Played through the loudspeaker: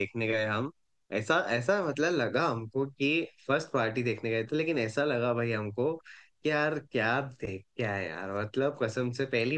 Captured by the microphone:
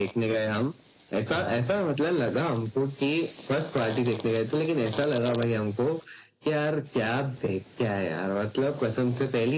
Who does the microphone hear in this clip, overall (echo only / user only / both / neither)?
echo only